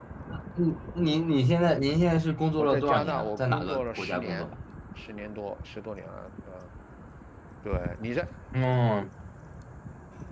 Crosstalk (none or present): present